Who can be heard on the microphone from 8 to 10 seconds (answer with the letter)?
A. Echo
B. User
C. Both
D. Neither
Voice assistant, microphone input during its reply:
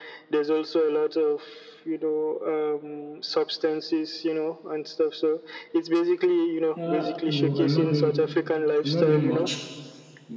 C